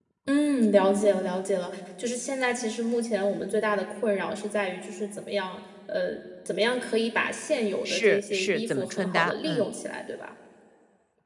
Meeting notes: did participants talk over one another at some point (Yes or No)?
Yes